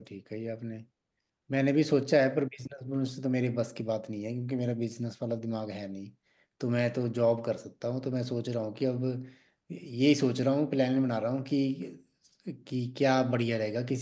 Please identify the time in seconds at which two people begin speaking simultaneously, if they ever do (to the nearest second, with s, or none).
none